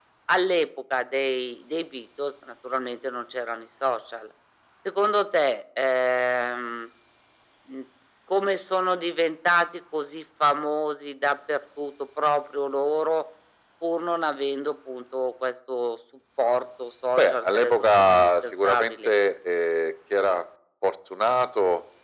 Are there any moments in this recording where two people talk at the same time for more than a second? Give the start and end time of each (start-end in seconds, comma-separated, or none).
17.2-19.1